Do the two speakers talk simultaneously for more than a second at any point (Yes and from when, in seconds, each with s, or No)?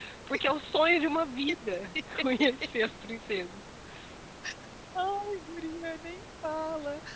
No